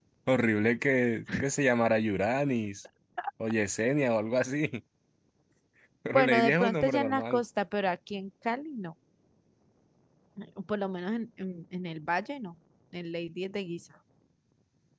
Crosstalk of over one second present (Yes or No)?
Yes